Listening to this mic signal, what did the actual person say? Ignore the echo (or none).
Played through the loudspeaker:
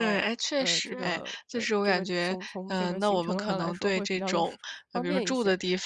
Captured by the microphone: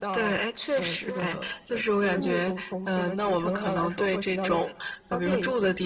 嗯，